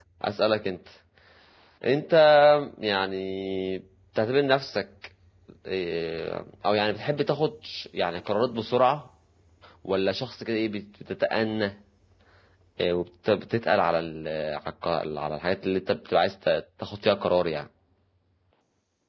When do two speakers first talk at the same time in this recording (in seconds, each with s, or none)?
none